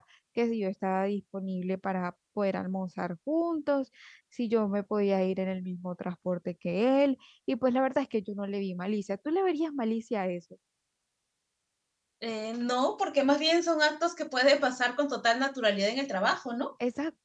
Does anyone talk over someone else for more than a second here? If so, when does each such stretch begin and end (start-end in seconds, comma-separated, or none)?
none